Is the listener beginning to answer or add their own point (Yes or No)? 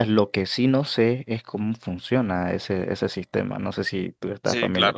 Yes